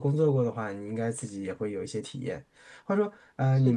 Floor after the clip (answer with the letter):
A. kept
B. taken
A